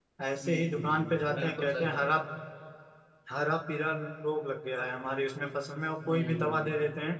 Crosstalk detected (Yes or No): Yes